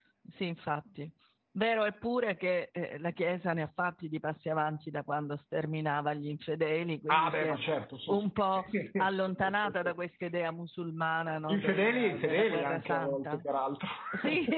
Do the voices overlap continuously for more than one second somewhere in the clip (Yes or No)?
Yes